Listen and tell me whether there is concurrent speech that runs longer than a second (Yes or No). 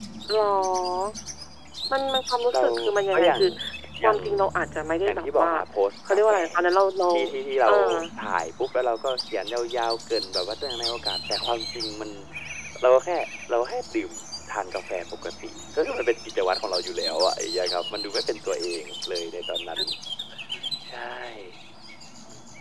No